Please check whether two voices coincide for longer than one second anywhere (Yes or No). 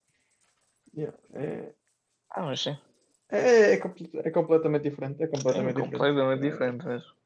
Yes